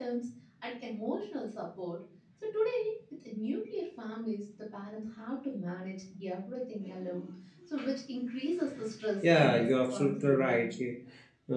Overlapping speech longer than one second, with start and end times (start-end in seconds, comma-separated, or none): 9.2-10.7